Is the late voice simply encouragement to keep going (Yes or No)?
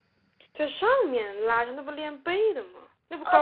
No